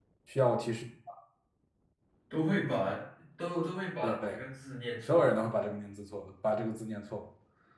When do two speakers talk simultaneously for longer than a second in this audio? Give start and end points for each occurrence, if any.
none

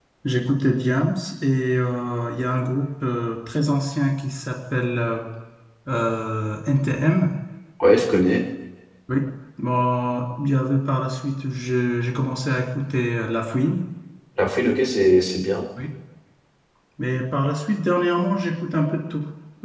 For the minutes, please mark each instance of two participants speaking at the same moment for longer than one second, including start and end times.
none

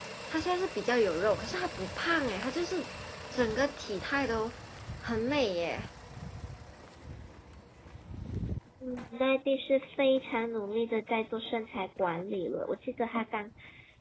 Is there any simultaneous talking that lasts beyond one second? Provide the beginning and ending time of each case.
none

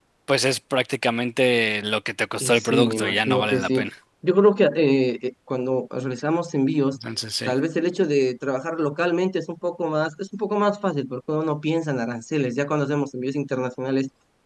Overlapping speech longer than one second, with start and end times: 2.4-3.8

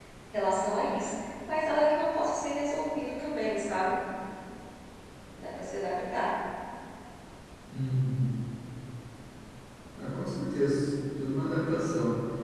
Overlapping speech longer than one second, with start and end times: none

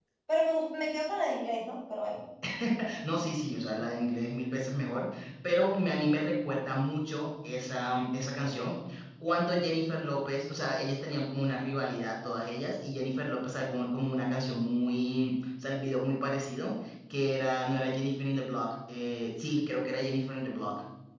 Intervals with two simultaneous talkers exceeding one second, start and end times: none

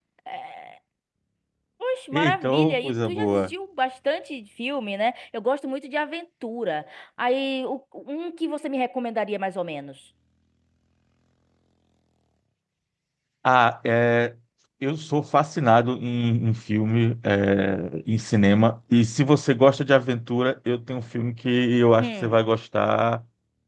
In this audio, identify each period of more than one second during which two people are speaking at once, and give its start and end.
2.1-3.5

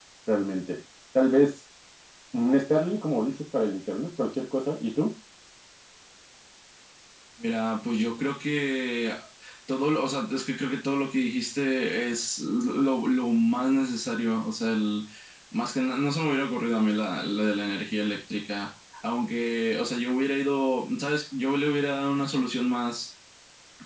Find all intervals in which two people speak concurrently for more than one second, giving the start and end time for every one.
none

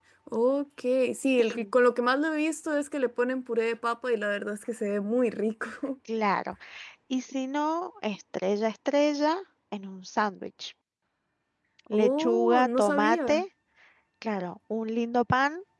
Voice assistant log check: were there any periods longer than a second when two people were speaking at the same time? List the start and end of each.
11.9-13.4

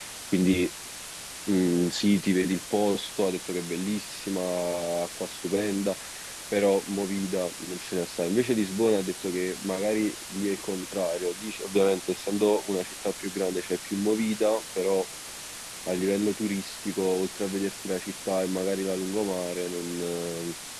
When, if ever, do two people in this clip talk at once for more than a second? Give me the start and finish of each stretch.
none

